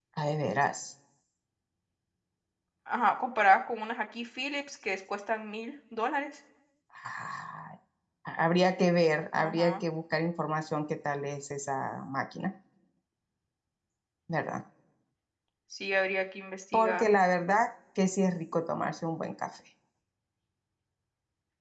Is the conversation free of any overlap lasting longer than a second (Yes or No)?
Yes